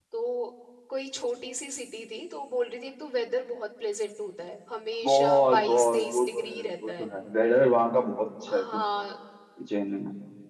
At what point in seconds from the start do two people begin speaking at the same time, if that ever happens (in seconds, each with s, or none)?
5.0 s